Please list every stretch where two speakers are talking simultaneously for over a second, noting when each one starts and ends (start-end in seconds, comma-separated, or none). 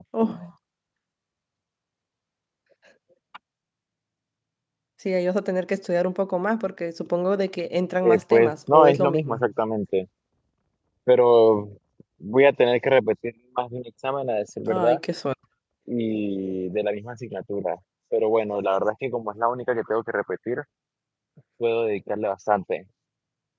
8.0-9.4